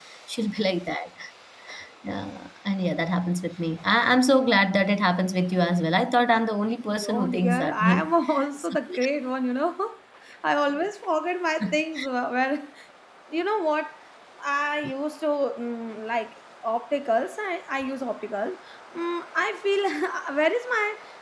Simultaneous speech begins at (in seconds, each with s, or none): 6.9 s